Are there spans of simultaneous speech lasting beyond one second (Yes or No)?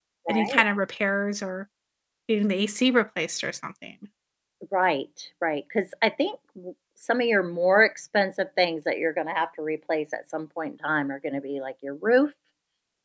No